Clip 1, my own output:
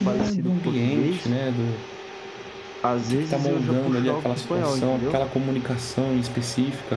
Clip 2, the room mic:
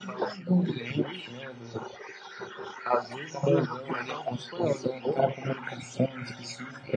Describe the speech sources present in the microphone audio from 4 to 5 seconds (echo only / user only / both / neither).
echo only